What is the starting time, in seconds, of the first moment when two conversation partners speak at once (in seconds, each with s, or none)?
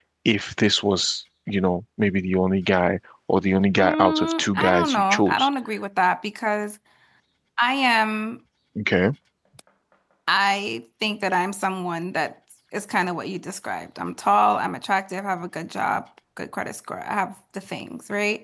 3.8 s